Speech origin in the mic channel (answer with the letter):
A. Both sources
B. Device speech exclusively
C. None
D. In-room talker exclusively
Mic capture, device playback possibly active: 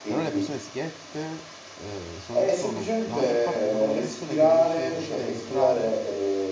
A